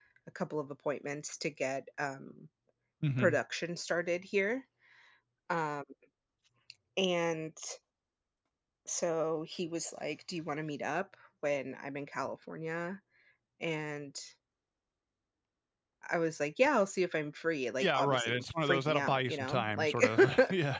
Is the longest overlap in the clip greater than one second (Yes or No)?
Yes